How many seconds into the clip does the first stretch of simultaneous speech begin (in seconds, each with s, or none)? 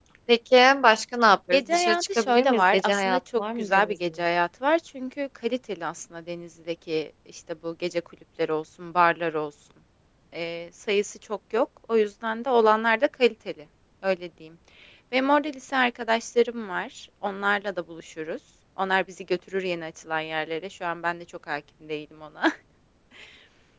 1.5 s